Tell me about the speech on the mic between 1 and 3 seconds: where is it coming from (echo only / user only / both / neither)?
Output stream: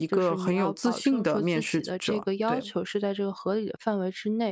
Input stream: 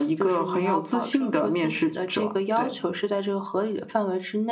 echo only